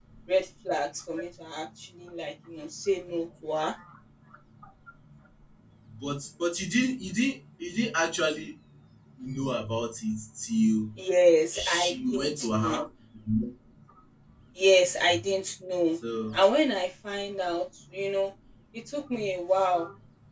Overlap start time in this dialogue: 11.5 s

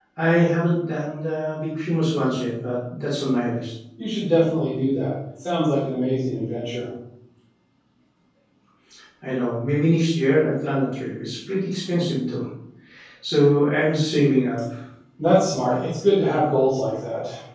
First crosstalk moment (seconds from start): none

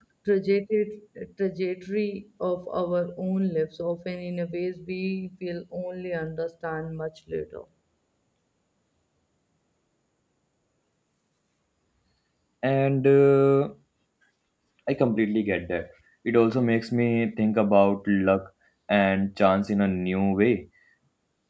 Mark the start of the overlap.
none

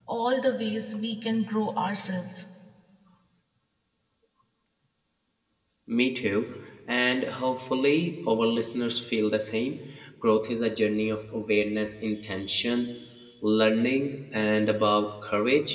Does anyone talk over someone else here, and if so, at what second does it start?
none

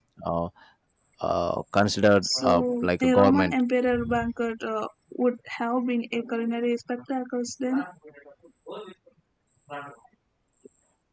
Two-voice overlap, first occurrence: 2.2 s

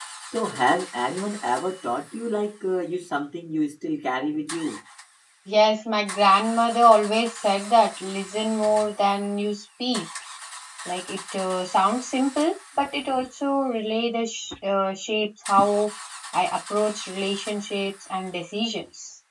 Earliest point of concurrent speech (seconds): none

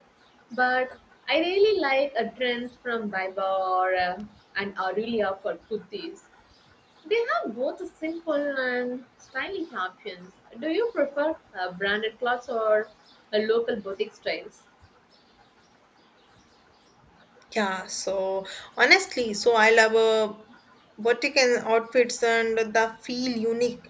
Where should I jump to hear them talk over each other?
none

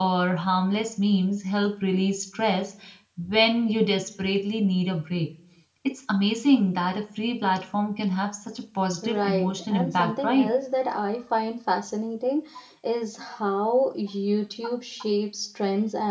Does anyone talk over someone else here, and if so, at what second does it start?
9.0 s

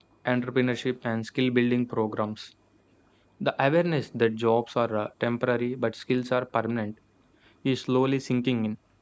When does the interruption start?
none

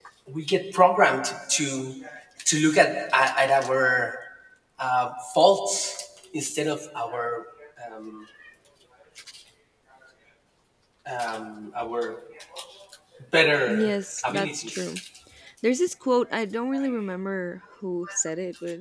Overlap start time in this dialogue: 13.7 s

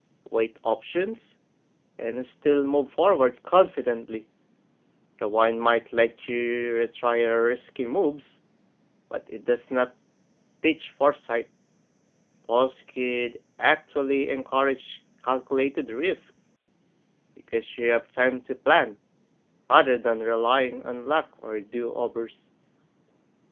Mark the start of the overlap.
none

